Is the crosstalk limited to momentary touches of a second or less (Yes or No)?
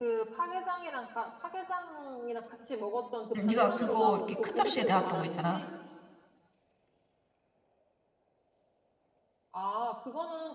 No